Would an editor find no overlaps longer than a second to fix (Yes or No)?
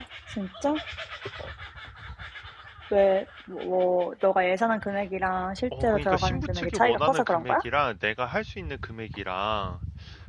No